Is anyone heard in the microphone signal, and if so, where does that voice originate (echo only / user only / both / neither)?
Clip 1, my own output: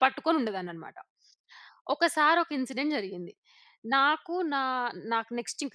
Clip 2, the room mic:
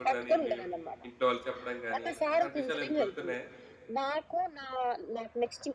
both